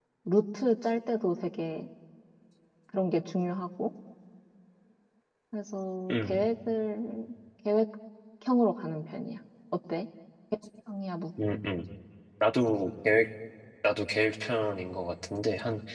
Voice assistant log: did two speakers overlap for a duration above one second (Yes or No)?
No